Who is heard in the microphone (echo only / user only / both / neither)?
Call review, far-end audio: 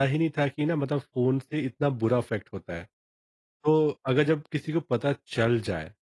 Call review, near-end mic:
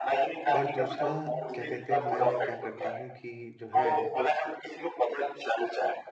both